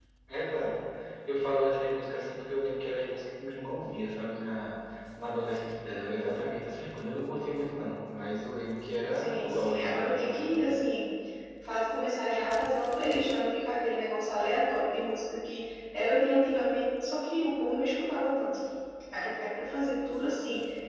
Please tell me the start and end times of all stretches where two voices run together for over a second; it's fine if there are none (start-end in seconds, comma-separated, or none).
9.1-10.4